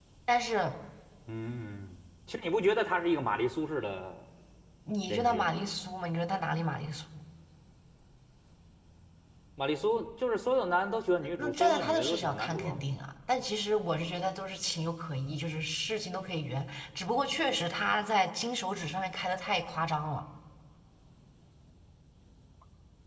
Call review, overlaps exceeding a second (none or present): present